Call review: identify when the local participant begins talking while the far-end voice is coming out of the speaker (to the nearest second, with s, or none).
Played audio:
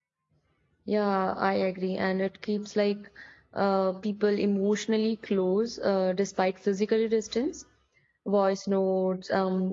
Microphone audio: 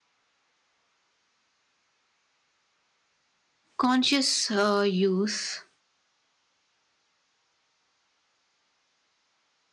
4 s